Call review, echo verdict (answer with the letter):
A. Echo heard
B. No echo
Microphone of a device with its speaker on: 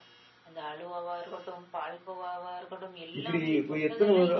A